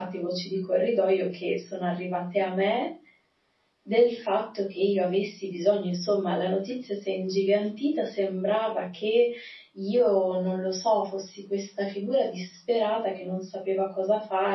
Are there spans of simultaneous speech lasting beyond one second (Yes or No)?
No